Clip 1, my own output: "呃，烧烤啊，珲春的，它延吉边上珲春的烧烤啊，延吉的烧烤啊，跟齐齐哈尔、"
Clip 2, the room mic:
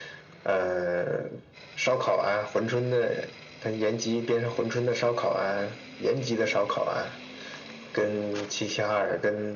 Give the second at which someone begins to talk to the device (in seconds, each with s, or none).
none